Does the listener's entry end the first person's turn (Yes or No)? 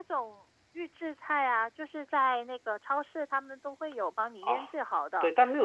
Yes